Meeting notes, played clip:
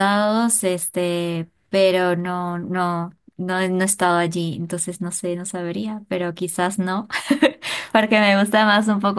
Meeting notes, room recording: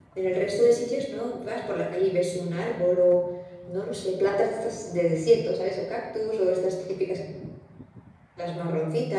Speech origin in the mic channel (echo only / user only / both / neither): user only